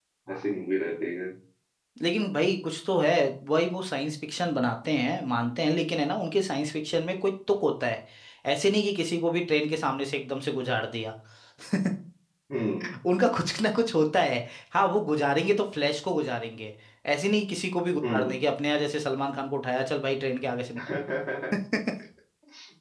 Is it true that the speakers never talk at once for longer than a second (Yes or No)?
Yes